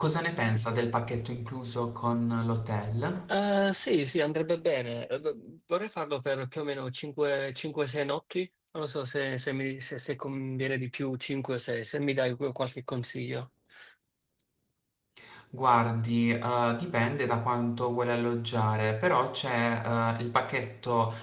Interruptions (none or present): none